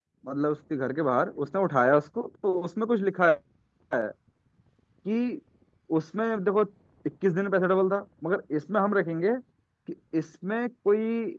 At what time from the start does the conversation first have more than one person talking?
none

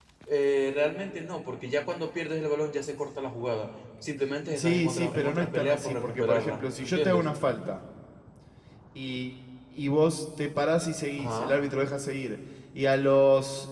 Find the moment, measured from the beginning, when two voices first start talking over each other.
4.6 s

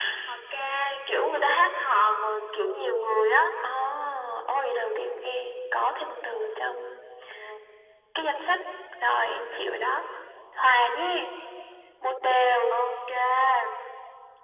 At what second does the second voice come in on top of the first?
none

